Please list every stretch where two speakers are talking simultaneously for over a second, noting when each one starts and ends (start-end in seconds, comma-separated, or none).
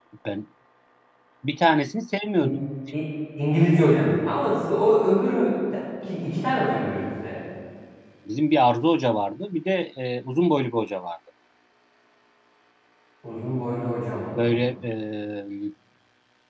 none